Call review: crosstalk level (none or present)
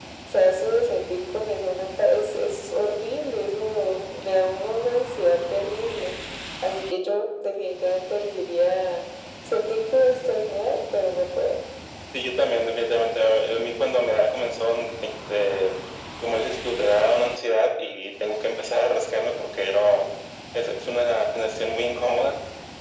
none